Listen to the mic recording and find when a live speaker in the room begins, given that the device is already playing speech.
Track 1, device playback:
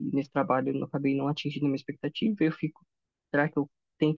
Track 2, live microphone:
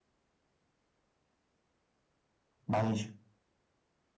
2.7 s

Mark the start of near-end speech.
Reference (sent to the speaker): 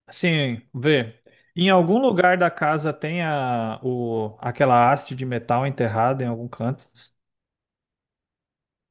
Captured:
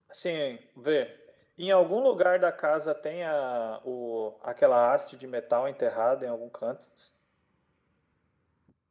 none

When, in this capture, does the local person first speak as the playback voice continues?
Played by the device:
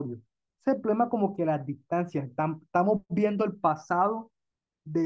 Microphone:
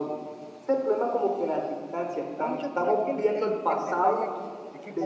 2.3 s

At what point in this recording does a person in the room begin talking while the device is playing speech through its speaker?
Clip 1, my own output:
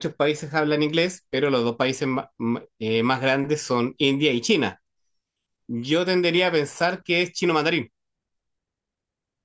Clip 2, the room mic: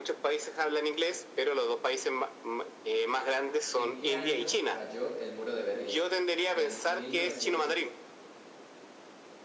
3.7 s

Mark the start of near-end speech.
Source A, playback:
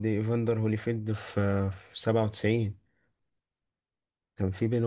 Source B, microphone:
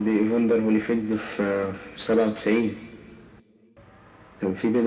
none

